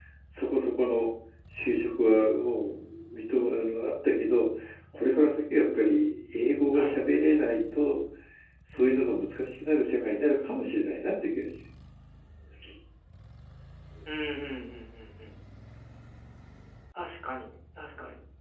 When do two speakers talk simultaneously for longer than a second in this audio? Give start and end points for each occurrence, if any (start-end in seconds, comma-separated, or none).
none